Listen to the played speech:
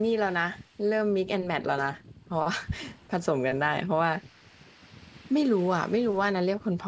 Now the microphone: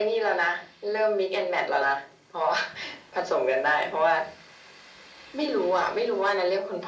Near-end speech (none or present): none